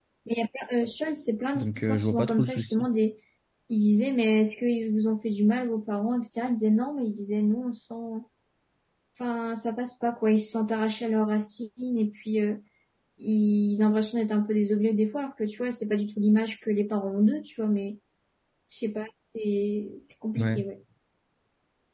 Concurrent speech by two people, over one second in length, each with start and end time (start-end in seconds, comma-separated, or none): 1.6-2.9